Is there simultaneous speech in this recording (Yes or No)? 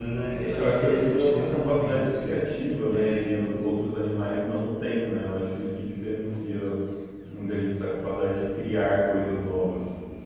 Yes